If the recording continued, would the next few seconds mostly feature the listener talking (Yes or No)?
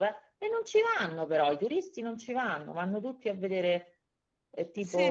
Yes